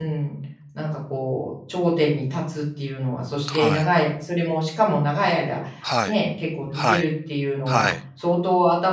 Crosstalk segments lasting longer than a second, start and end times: none

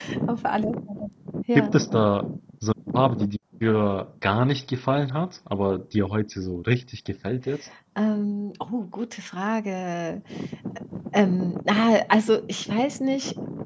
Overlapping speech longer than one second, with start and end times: none

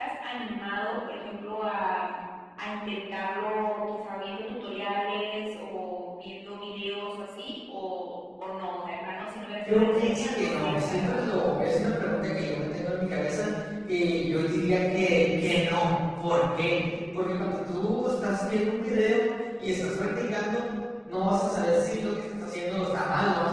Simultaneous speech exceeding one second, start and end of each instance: 9.7-11.2

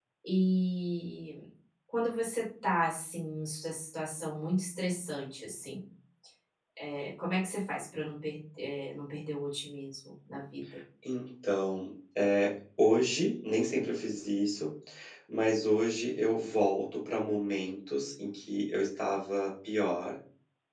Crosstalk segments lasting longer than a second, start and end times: none

